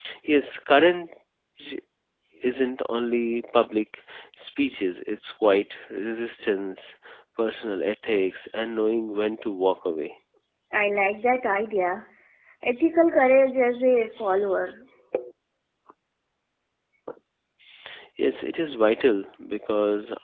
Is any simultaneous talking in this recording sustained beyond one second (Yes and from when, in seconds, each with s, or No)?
No